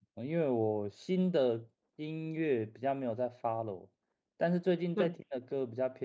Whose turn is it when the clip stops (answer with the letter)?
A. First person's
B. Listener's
A